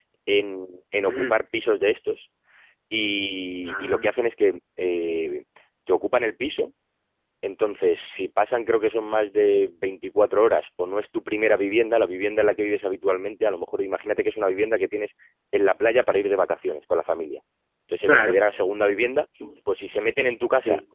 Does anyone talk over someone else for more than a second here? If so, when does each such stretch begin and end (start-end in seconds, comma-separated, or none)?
none